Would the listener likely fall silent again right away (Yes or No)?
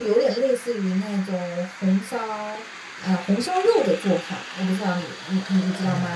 No